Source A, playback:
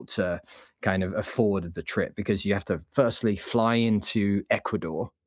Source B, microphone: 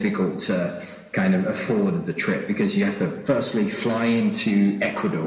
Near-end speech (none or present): none